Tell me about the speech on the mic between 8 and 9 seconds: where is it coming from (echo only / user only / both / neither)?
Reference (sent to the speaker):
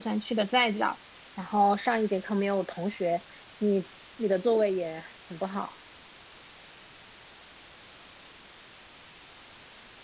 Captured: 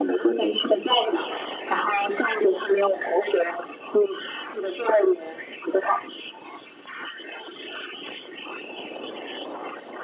neither